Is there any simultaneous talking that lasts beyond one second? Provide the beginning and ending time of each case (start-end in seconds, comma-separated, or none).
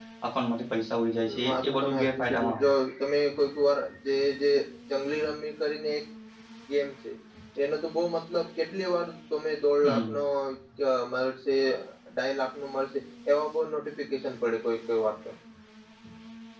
1.2-2.7